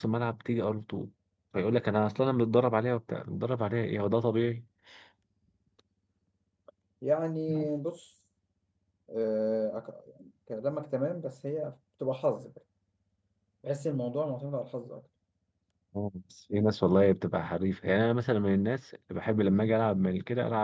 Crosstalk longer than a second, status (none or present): none